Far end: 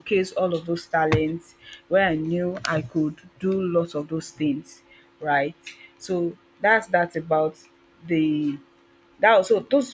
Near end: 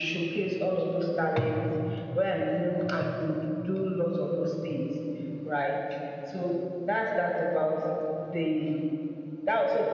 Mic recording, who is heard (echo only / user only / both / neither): echo only